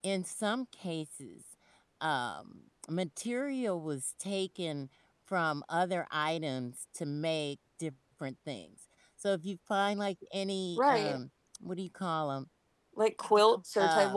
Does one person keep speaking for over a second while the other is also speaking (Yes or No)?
No